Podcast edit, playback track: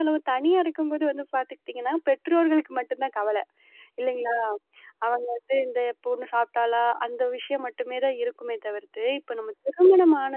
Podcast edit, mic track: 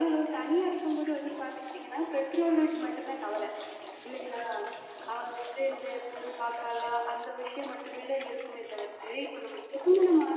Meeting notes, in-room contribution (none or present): none